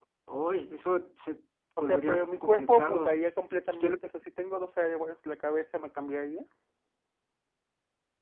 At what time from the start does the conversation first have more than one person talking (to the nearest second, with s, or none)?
2 s